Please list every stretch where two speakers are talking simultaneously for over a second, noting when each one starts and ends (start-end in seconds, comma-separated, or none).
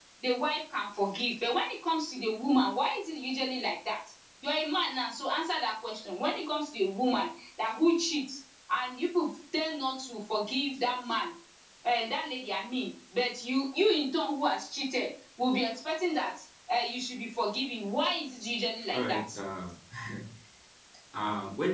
none